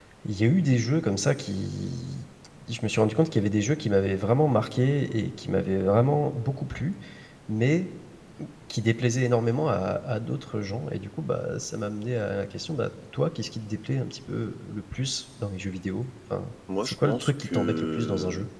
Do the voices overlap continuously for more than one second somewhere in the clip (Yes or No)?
Yes